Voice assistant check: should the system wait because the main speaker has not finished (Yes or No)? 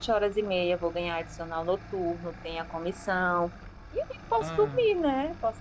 Yes